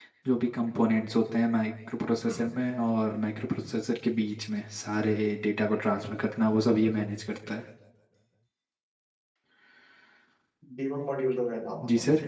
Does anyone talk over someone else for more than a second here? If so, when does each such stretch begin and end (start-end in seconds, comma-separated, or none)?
none